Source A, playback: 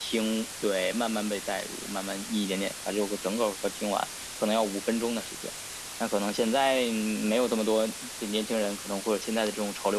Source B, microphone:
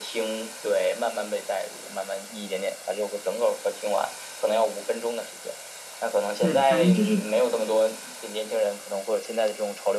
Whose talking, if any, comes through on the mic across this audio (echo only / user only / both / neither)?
both